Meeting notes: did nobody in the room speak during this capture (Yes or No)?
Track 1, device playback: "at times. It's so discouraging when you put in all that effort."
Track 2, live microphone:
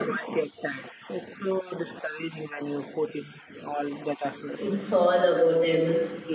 No